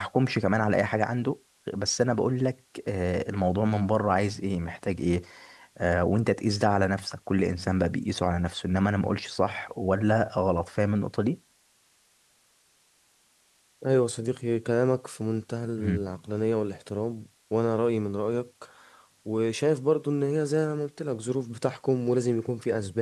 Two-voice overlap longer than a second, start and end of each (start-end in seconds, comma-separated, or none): none